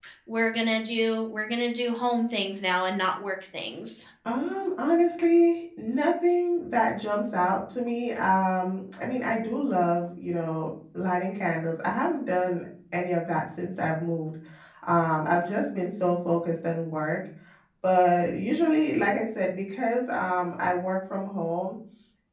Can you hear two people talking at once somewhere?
No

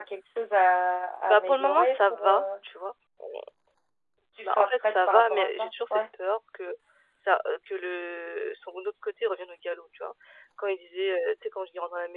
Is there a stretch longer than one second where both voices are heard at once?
Yes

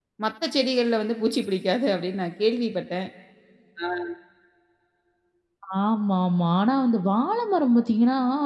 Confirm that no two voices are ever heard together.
Yes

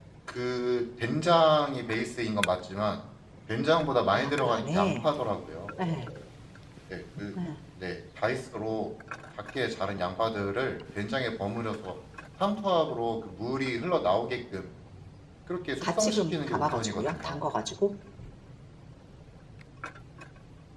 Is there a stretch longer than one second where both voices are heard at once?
Yes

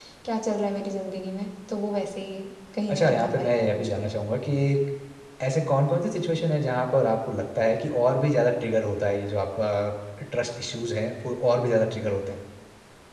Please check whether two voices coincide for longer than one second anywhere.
Yes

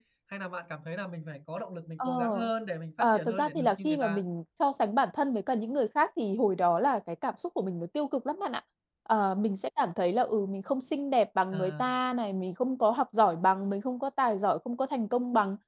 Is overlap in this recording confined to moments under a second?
No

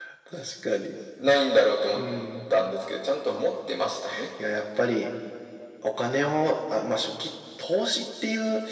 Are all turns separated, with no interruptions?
Yes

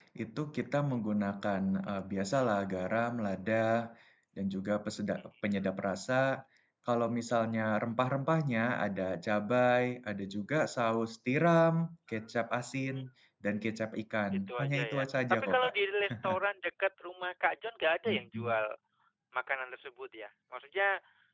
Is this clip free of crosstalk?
No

